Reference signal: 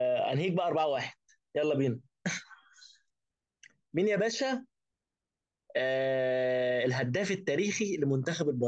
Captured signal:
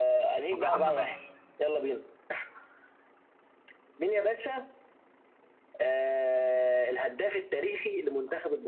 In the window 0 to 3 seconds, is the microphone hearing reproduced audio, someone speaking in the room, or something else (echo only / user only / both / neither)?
both